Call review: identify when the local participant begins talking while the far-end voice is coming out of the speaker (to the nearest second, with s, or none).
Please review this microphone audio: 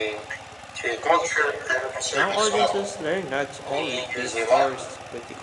2 s